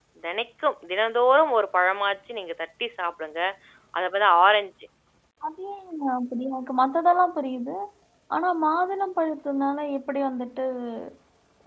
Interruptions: none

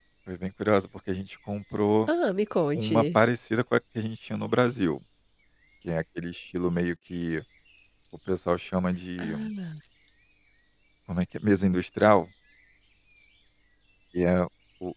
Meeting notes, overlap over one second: none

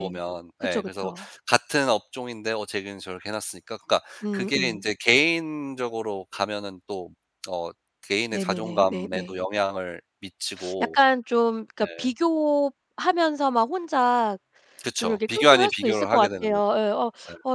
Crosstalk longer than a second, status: present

